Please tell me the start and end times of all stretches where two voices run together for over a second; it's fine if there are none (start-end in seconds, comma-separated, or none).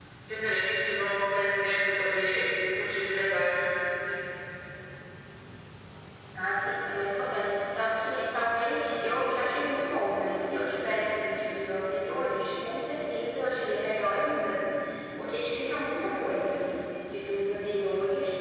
none